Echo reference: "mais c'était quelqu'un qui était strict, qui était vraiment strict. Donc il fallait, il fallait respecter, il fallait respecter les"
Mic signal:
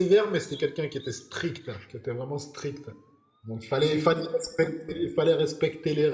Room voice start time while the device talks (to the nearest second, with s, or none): none